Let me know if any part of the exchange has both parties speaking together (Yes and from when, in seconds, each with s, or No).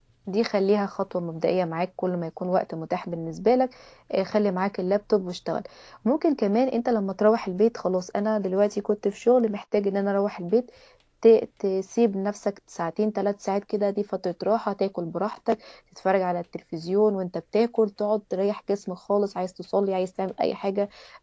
No